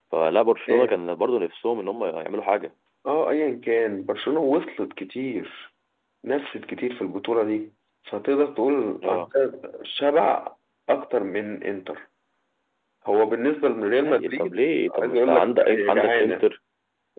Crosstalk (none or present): present